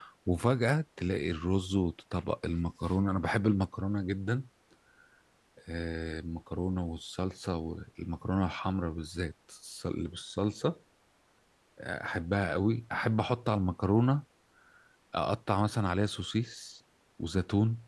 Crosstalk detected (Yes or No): No